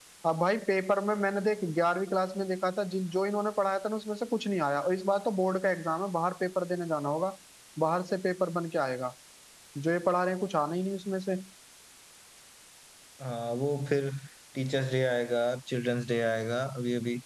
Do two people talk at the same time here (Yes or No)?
No